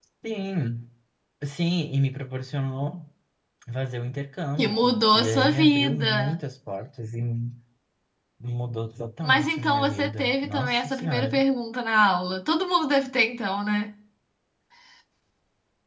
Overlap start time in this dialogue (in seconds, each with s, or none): 4.6 s